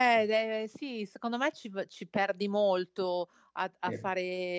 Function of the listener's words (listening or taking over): listening